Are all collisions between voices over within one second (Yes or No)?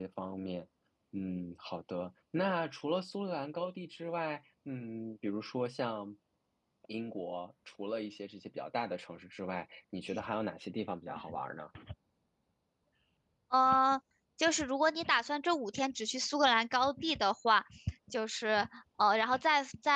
Yes